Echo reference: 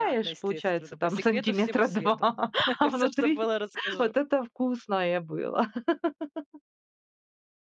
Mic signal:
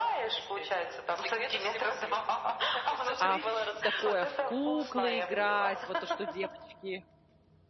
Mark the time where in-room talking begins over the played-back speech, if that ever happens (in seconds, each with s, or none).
3.2 s